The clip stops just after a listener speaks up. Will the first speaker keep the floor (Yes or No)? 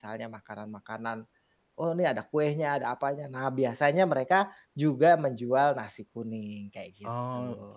No